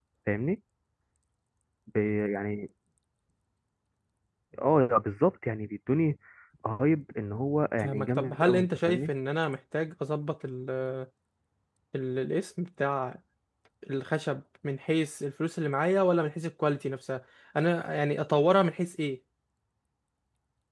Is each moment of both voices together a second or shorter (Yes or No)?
No